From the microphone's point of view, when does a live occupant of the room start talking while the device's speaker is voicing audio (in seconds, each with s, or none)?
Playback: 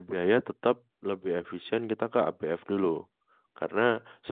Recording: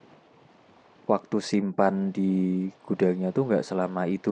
1.1 s